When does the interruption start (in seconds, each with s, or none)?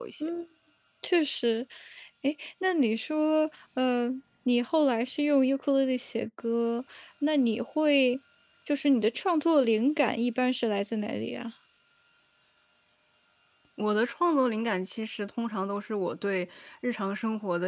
none